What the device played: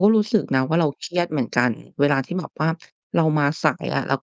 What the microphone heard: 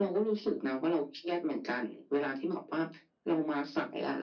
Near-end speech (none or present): none